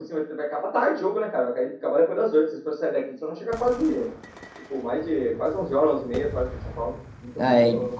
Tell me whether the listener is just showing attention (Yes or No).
No